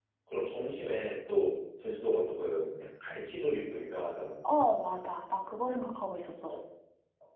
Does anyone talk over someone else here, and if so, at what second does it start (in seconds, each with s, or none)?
none